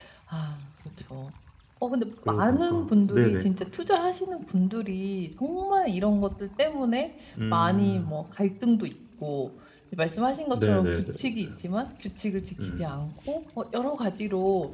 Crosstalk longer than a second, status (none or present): present